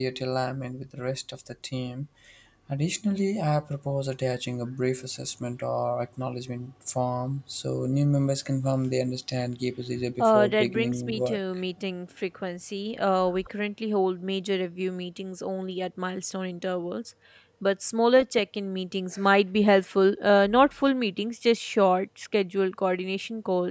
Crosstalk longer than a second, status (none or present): present